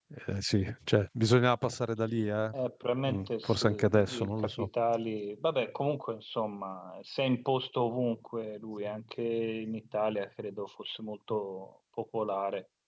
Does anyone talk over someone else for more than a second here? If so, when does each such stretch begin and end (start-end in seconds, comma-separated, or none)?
3.1-4.7